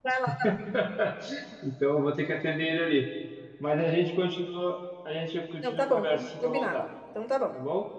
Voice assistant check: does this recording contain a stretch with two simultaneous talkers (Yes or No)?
Yes